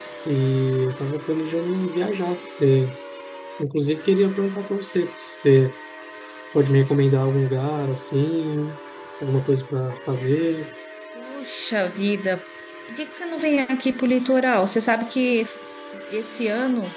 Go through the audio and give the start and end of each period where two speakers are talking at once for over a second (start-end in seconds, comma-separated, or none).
none